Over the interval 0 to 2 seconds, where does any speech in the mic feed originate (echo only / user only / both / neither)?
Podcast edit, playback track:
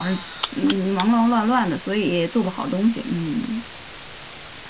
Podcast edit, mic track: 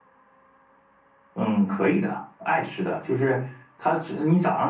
user only